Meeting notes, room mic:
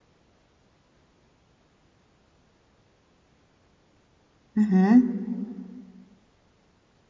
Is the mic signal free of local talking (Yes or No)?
No